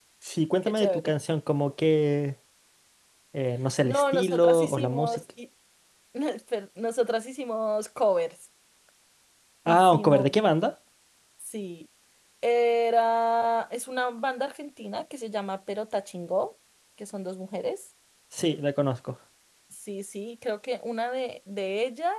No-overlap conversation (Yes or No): No